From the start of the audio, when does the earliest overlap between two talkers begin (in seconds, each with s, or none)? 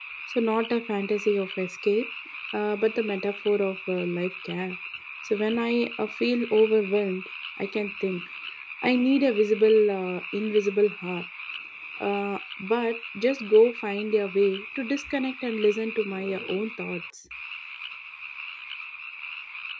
none